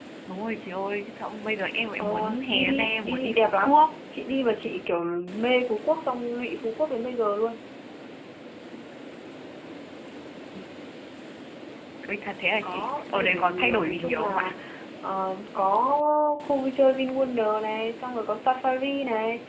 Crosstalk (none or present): present